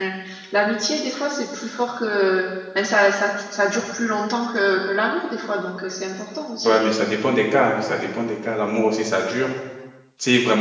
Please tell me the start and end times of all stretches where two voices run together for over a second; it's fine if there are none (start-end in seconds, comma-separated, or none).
none